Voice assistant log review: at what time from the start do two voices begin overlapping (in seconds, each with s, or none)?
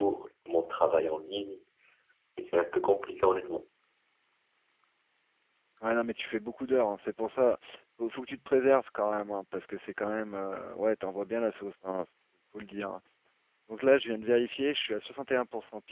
none